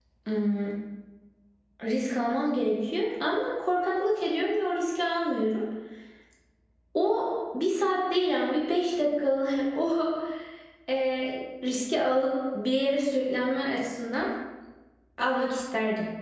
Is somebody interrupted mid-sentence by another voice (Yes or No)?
No